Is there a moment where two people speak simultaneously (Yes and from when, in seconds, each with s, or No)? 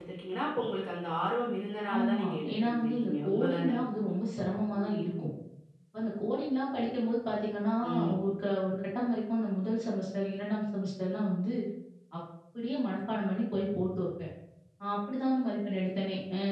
Yes, from 2.0 s